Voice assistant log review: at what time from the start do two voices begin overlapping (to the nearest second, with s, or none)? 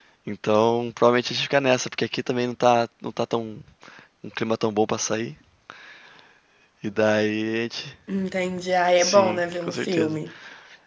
9 s